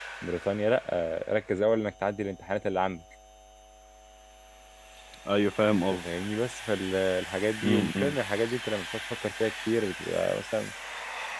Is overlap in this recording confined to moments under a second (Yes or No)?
Yes